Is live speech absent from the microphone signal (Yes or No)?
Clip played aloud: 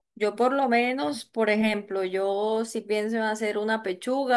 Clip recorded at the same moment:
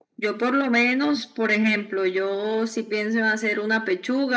Yes